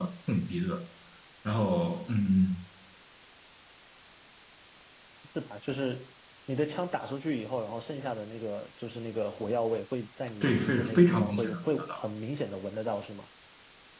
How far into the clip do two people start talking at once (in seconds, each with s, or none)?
10.4 s